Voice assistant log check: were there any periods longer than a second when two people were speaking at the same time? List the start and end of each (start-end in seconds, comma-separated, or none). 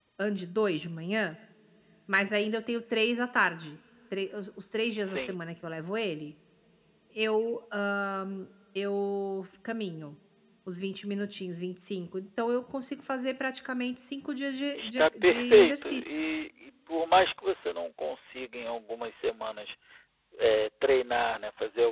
14.7-16.2